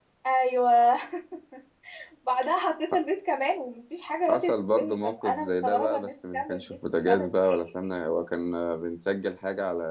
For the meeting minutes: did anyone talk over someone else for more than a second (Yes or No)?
Yes